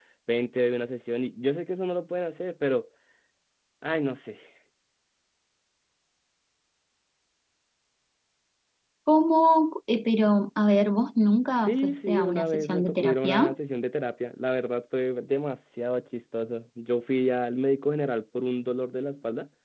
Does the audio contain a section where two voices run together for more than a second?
Yes, from 11.7 s

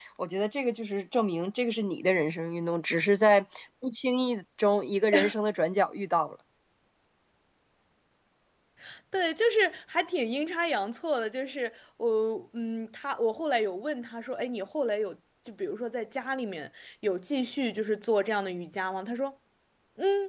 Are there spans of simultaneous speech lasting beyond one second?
No

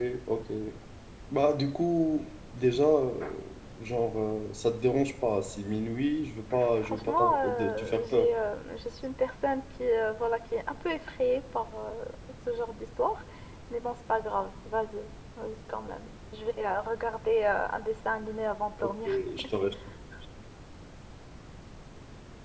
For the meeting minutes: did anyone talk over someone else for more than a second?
Yes, from 6.8 s

